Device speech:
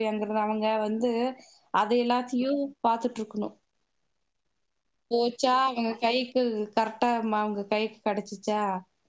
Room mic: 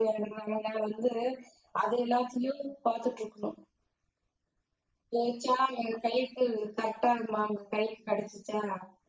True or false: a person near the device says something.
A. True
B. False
B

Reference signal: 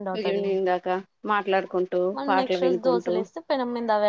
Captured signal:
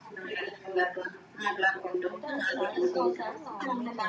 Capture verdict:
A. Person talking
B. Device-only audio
A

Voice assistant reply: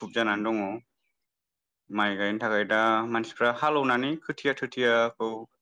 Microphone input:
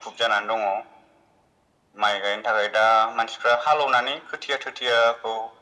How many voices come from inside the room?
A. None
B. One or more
A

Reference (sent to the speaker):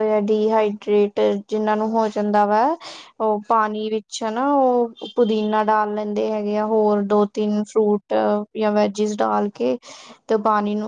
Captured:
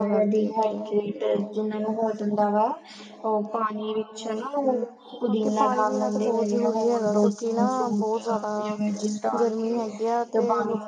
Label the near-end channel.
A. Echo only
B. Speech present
B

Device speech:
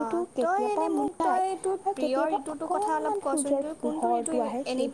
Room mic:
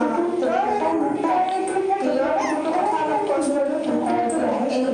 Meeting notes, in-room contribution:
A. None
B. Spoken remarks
A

